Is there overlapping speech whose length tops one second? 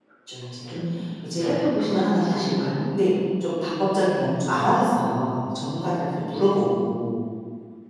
Yes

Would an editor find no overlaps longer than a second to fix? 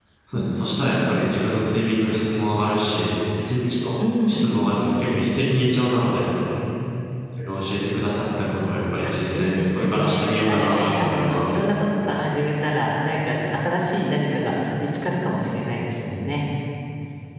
No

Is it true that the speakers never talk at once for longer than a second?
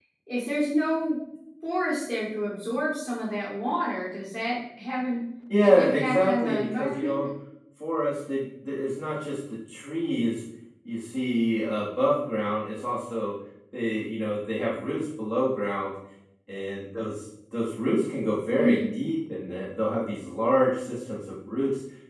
No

